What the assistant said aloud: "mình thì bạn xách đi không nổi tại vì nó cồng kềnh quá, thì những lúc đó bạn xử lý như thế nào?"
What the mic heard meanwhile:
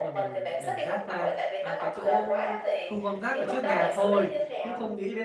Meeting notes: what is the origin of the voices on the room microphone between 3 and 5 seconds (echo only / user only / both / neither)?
both